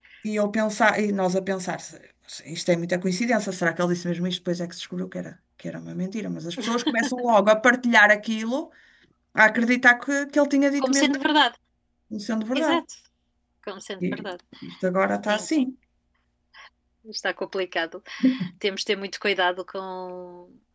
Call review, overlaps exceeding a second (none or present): none